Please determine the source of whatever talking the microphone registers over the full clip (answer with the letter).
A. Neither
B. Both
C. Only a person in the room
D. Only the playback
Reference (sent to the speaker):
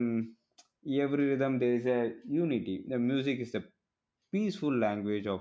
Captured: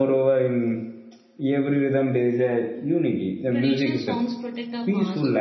B